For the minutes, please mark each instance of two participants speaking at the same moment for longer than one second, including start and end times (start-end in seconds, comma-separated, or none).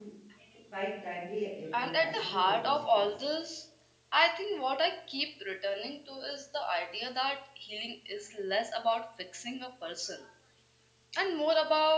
1.8-3.1